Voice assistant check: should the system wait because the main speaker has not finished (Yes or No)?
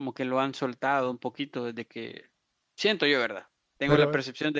Yes